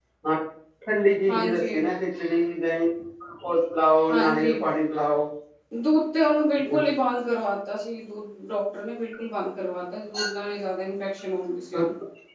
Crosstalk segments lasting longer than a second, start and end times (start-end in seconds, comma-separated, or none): none